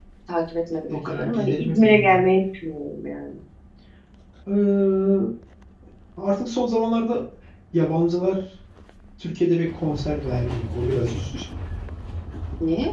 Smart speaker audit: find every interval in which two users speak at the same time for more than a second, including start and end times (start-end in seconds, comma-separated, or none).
0.9-2.2